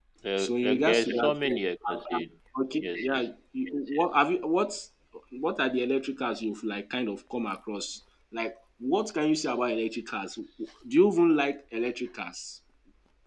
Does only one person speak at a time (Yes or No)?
No